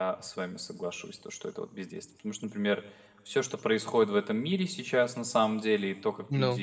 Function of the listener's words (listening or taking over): listening